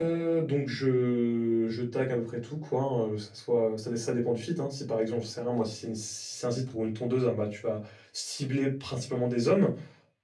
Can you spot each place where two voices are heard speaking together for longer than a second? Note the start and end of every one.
none

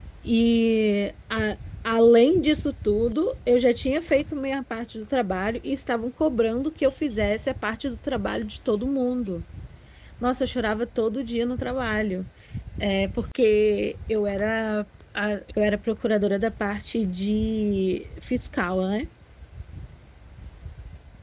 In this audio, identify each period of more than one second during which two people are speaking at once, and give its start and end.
none

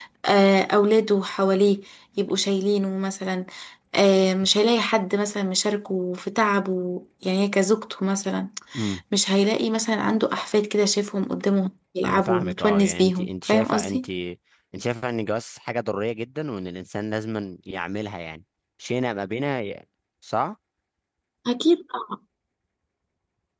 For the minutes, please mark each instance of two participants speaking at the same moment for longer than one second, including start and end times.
12.0-14.1

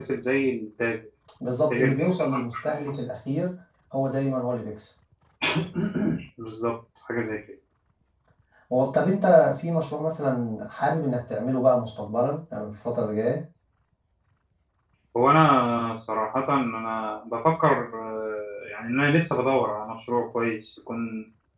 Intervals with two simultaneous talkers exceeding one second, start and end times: 1.7-3.0

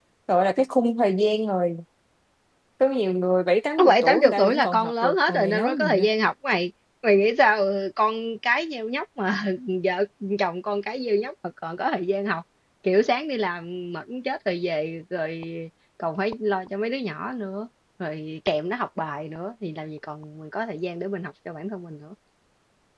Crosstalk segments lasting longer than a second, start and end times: 3.9-6.1

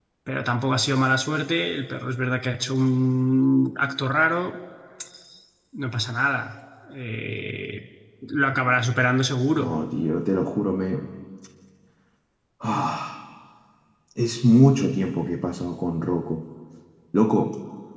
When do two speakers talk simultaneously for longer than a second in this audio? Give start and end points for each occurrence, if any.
none

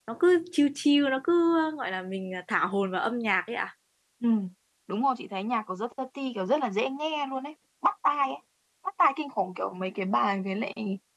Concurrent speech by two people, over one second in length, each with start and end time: none

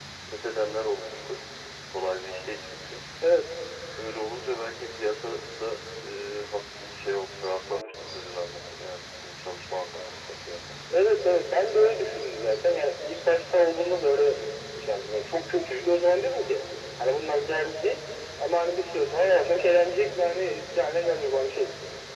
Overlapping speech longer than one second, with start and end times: none

